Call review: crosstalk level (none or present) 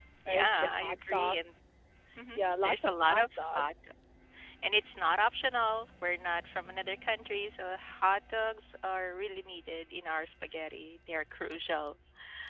present